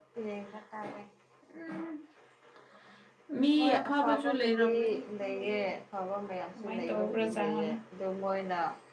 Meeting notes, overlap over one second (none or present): present